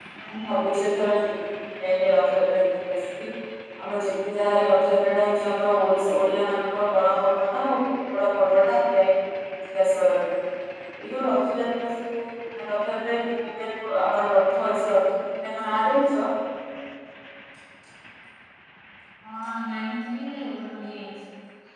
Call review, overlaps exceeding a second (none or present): none